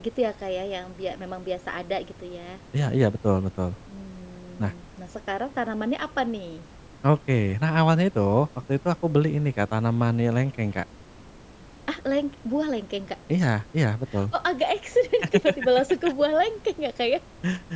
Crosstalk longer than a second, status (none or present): none